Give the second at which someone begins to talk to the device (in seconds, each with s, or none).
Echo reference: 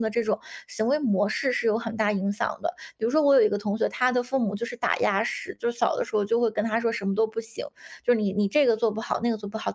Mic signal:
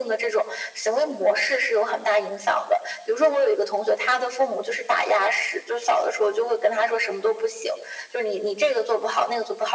none